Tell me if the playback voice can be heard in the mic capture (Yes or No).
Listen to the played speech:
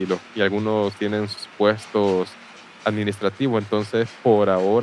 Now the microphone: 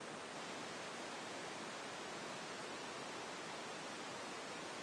No